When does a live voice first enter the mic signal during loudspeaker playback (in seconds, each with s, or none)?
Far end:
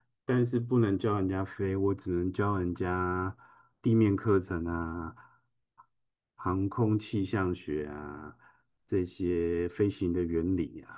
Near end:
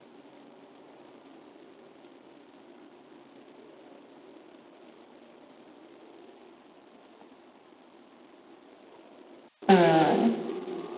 9.7 s